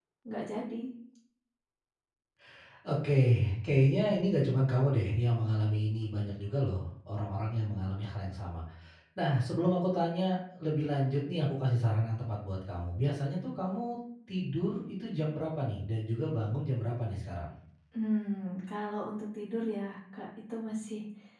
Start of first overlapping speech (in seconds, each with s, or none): none